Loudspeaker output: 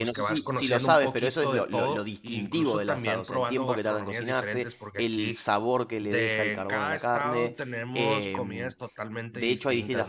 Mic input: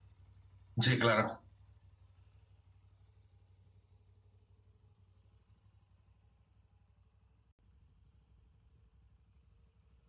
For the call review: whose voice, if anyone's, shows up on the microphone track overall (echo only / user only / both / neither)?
user only